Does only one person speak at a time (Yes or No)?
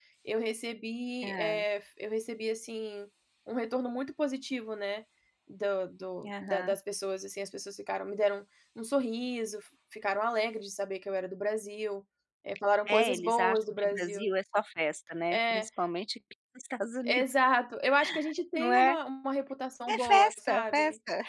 No